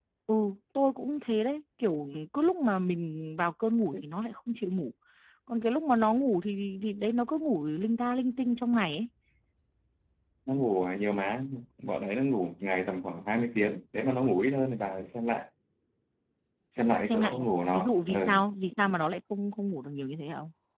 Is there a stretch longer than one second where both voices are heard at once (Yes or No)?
Yes